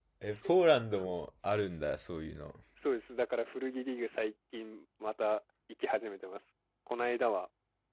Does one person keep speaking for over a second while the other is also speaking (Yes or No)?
No